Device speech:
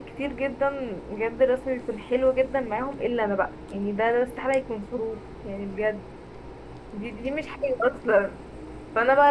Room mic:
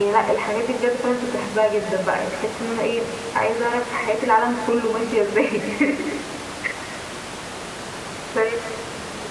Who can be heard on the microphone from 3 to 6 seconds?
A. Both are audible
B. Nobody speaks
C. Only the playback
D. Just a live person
D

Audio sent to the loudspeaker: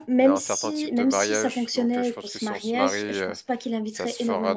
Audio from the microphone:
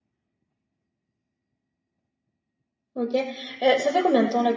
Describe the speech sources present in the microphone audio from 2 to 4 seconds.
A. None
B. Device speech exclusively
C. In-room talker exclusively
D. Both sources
C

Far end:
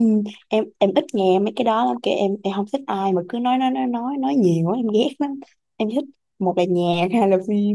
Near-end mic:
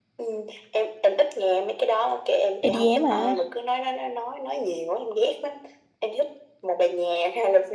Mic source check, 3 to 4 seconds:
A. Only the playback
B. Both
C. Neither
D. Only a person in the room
B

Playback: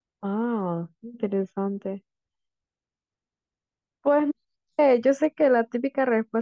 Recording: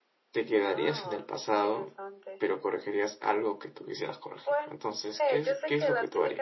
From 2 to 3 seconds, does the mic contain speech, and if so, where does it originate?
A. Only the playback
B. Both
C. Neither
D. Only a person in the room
B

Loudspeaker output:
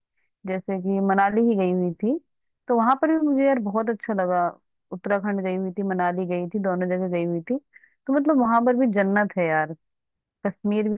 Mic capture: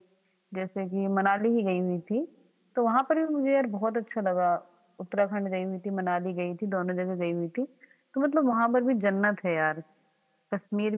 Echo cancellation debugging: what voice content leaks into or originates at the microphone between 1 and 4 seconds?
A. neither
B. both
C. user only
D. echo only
D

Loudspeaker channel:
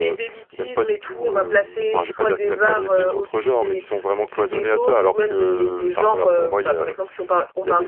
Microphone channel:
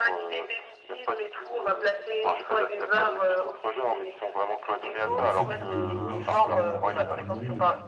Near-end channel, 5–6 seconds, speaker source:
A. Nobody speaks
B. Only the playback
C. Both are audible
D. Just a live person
C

